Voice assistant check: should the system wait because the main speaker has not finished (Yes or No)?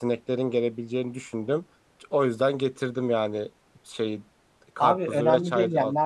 No